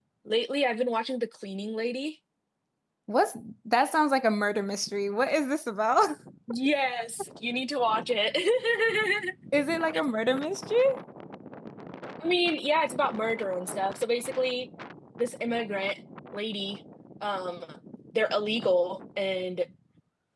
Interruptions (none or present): none